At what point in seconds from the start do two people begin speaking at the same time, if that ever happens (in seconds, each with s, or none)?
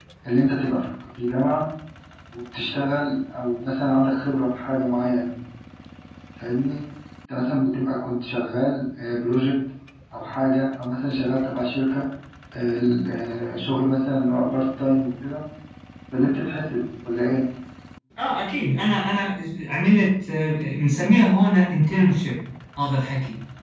none